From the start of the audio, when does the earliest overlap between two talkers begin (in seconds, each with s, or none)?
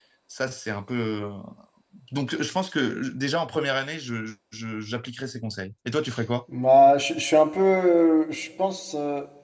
none